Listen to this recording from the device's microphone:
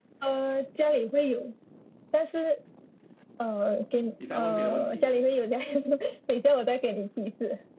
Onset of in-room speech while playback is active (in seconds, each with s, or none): 4.2 s